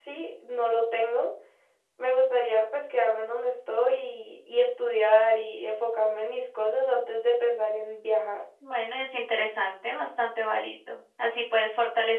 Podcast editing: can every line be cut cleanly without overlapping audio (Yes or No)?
Yes